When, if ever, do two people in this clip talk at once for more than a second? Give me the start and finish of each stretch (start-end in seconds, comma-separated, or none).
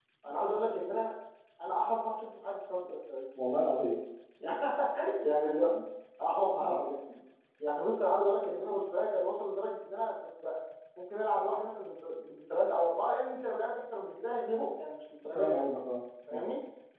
none